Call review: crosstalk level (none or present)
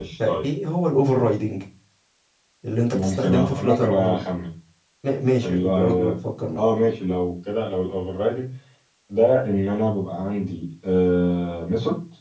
present